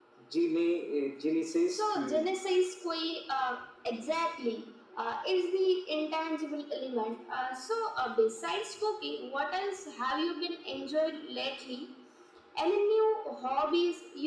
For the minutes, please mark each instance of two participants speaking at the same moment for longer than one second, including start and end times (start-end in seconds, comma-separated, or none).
none